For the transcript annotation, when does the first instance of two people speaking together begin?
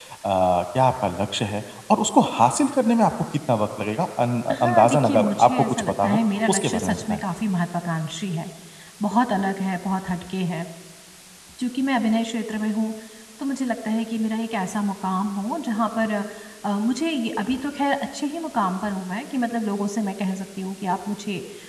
4.5 s

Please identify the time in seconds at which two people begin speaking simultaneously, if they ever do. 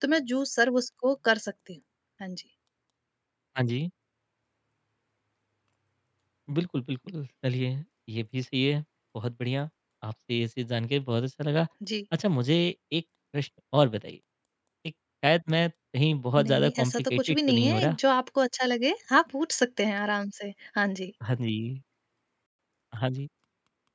16.4 s

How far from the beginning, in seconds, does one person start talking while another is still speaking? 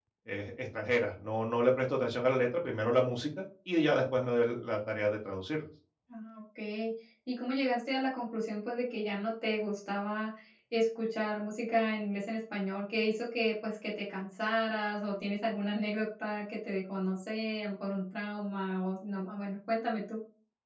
none

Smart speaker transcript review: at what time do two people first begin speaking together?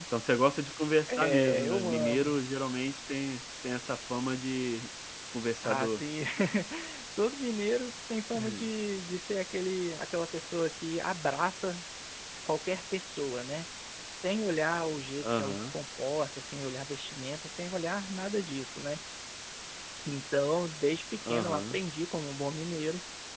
1.1 s

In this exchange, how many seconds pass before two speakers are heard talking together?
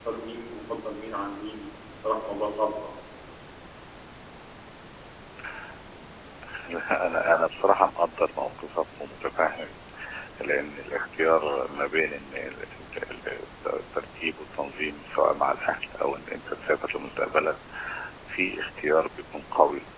none

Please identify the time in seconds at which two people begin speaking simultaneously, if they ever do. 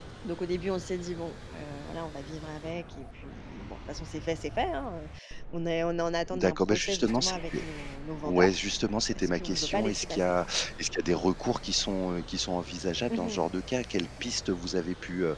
6.3 s

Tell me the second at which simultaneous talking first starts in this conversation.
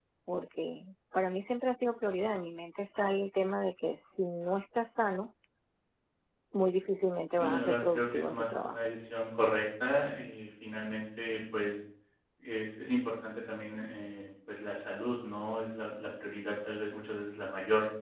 7.3 s

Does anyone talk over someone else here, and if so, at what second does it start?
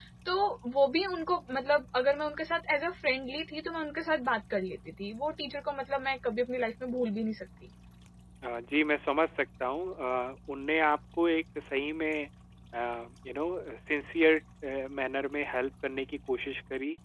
none

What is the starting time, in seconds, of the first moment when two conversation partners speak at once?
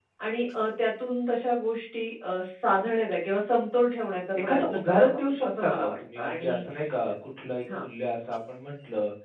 4.3 s

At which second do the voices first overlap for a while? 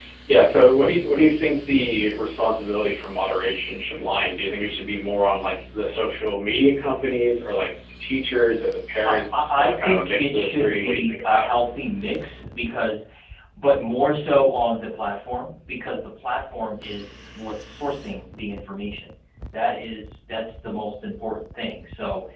9.0 s

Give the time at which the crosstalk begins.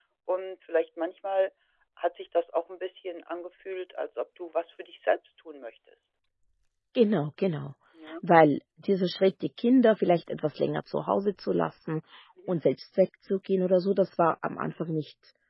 none

